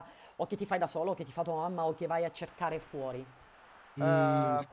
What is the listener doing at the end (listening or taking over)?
taking over